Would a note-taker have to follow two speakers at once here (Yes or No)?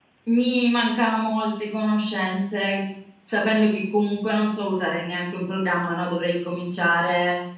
No